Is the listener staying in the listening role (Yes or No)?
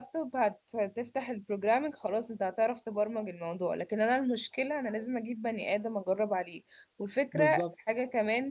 Yes